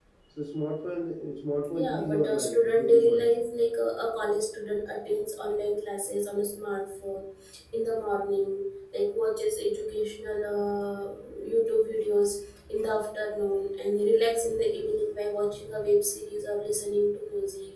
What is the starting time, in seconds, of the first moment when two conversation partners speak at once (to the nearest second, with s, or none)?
2 s